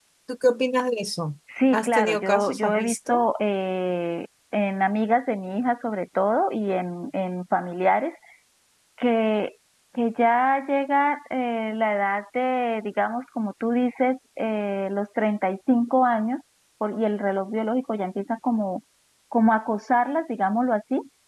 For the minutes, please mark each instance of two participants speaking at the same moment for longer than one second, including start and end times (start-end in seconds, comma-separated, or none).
1.7-3.2